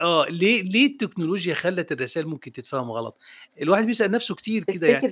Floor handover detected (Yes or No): No